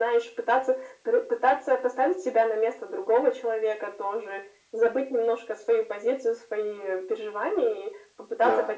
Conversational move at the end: listening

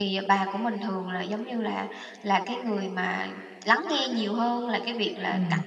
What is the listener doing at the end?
listening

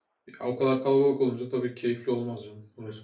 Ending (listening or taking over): taking over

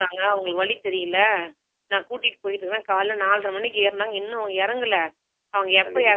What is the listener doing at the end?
listening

